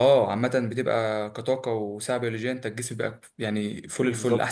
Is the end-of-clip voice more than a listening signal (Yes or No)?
Yes